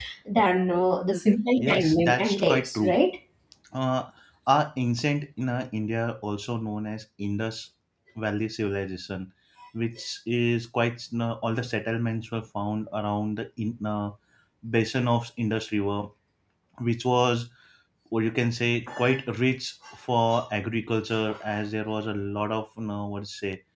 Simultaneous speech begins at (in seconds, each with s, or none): 1.6 s